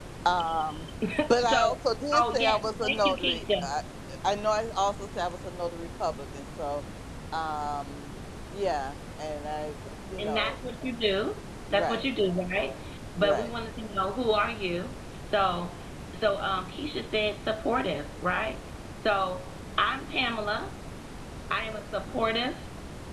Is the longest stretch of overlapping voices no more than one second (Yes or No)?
No